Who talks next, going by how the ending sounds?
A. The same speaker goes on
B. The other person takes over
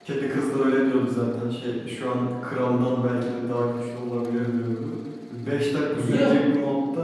A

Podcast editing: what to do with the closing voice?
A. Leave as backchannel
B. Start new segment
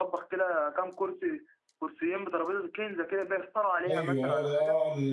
B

